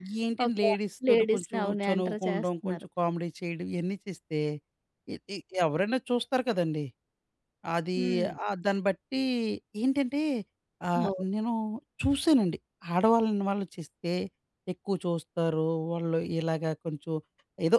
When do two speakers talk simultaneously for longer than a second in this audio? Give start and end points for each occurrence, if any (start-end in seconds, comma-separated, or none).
1.1-2.8